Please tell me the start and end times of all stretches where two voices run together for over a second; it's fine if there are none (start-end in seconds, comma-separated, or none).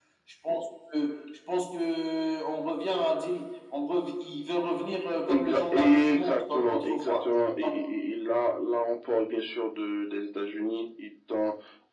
5.3-7.2